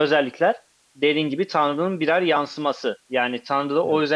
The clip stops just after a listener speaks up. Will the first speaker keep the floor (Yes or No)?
Yes